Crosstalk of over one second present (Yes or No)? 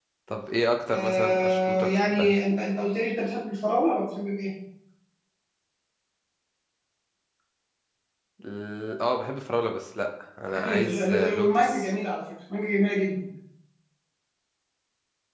Yes